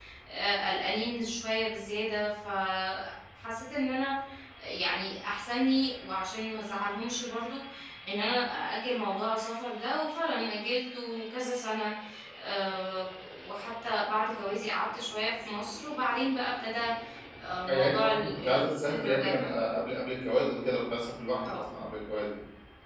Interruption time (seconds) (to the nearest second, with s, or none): 18 s